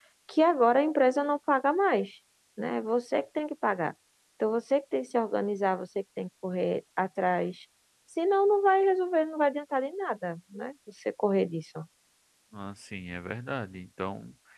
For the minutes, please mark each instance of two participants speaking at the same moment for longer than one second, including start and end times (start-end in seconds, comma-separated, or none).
none